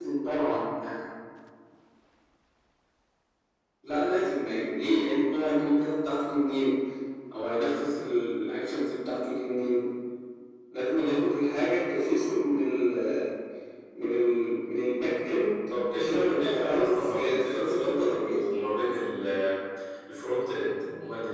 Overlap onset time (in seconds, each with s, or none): 15.7 s